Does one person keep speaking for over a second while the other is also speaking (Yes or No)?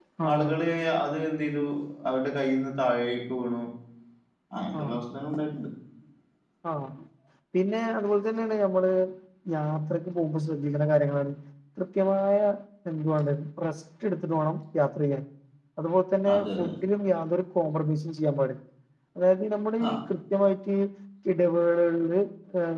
No